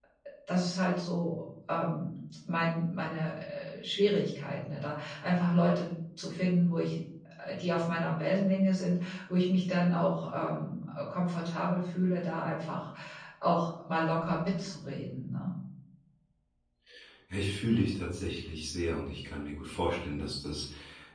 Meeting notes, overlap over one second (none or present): none